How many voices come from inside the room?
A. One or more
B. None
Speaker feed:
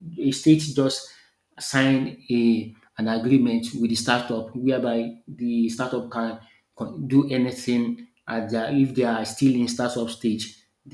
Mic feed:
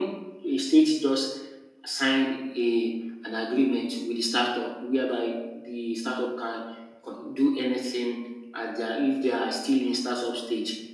B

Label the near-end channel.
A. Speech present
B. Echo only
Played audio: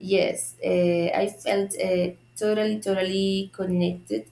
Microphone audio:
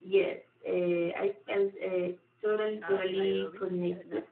A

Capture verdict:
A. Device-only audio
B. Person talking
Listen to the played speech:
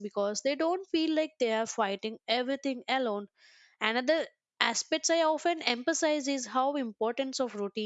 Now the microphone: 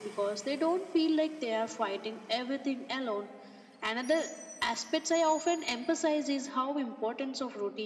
A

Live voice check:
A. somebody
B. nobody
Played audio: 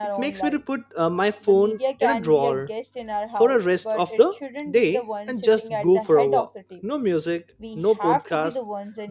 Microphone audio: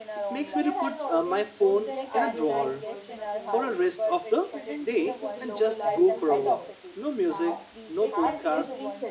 A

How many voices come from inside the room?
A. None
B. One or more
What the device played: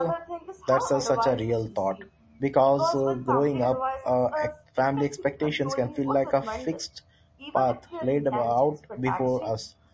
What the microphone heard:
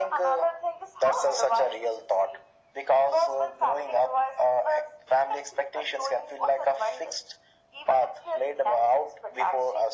A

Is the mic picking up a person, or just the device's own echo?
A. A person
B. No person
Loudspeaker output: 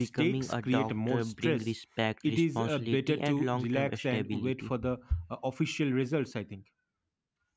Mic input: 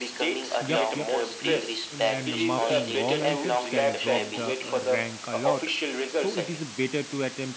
A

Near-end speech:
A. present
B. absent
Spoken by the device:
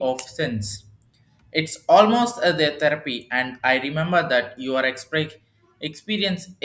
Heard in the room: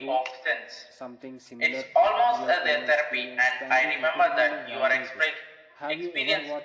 A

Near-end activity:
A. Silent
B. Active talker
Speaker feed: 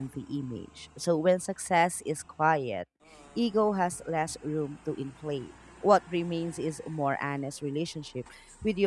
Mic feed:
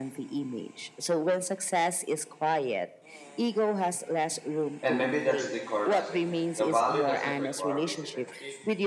B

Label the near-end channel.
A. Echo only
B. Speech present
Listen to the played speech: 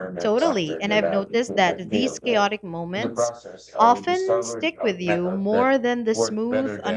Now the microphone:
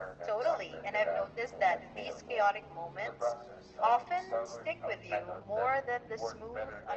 A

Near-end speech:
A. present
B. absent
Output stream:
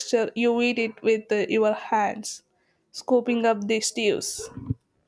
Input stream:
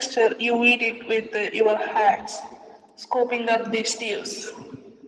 B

